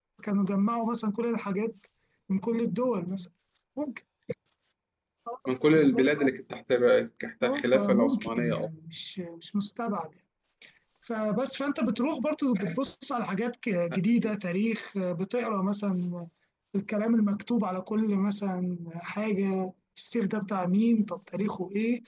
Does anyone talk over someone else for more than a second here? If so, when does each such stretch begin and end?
7.4-8.7

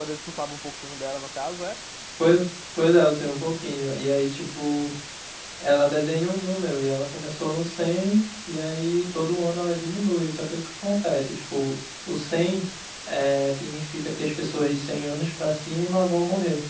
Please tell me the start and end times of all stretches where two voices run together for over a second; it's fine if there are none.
none

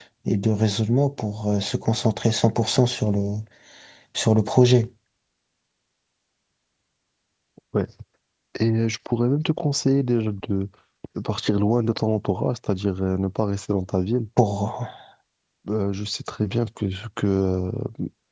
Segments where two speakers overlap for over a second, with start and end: none

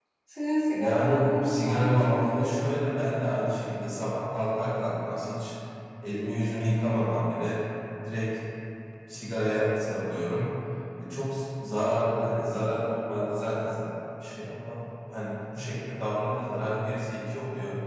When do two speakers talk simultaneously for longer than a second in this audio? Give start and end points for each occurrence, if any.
0.7-2.6

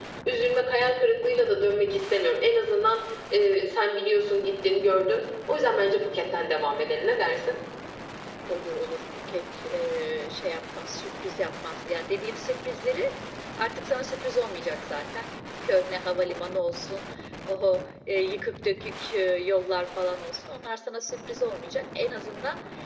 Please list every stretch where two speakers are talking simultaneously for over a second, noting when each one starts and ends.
none

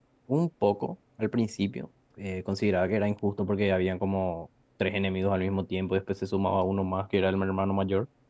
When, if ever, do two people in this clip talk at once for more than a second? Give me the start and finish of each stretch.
none

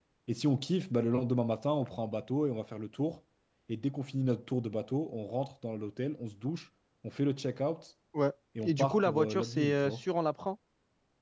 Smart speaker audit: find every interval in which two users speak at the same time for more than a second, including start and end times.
8.6-10.0

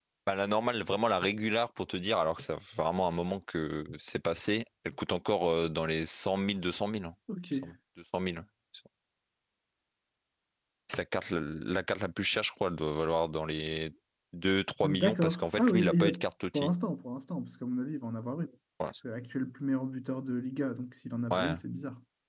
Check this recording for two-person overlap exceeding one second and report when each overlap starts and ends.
14.8-16.1

